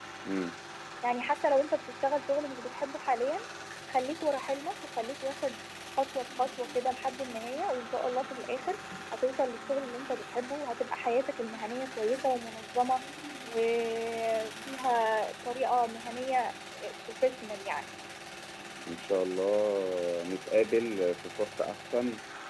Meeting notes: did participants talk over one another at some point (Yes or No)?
No